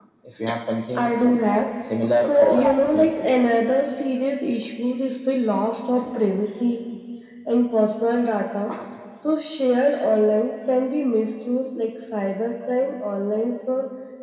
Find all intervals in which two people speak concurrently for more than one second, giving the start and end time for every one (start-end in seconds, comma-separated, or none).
2.2-3.4